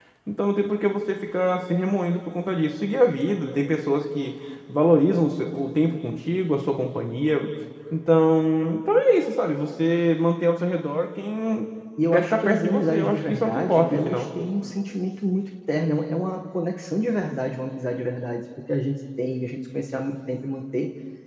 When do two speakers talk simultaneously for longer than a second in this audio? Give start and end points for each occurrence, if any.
12.1-14.3

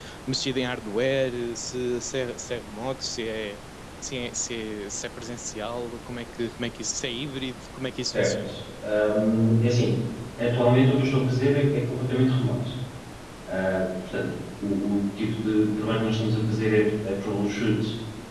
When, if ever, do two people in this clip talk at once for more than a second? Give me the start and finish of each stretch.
none

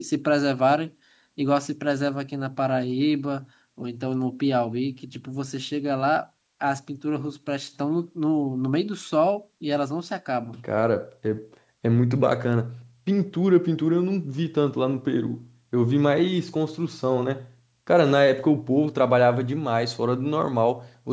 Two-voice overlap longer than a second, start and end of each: none

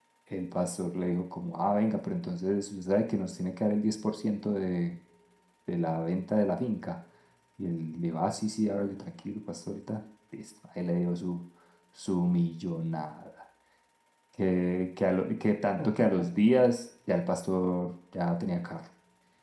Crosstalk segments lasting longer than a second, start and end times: none

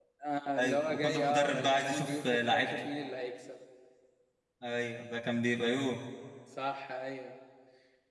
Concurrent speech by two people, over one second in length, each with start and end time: 0.6-2.7

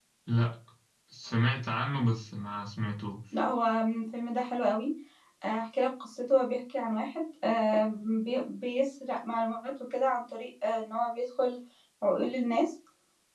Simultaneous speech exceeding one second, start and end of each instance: none

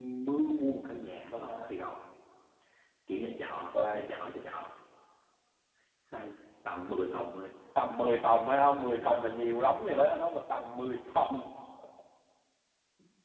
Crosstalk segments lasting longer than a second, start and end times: none

